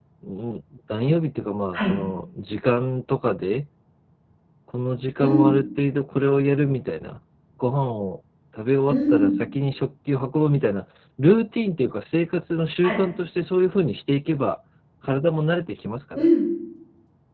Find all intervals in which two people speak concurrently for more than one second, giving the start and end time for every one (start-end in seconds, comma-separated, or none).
none